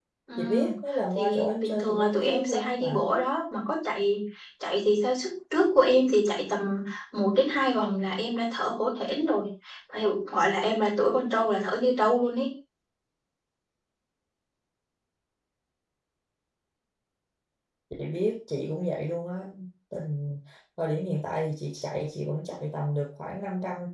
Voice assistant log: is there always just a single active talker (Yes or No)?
No